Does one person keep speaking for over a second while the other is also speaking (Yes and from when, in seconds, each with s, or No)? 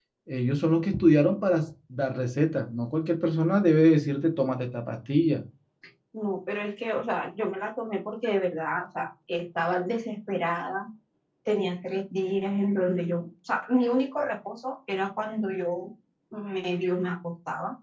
No